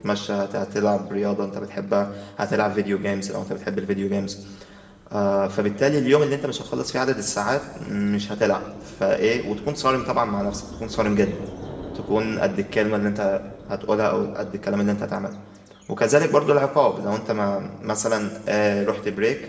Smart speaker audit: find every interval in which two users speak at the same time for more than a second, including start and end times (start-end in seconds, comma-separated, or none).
none